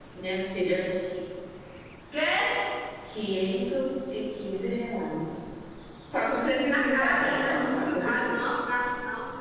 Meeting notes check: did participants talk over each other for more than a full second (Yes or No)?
Yes